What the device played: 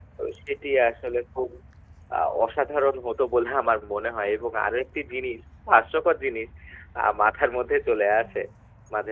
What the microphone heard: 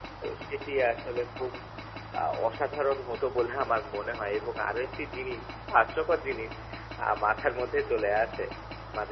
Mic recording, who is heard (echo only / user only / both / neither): echo only